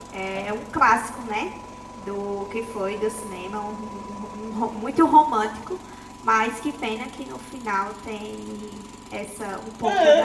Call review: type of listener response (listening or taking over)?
taking over